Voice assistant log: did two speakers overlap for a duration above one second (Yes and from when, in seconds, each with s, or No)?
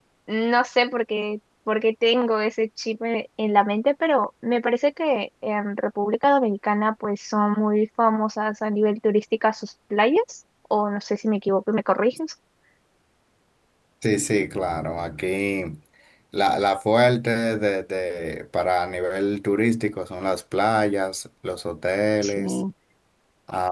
No